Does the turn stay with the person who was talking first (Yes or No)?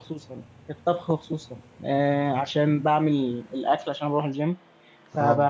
Yes